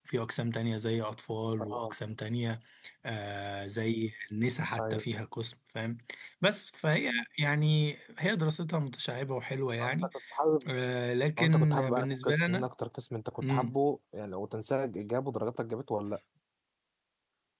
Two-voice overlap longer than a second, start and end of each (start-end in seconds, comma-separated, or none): 11.4-12.7